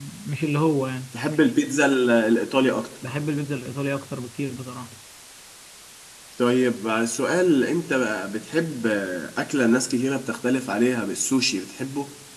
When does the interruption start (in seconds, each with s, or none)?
none